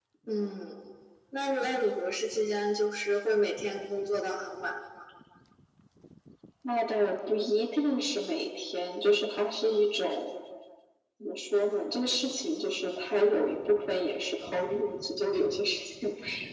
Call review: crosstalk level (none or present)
none